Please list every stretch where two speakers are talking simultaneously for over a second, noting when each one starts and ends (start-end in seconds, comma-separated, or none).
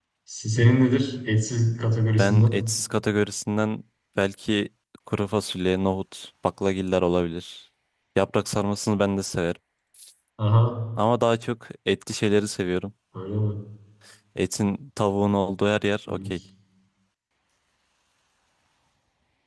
none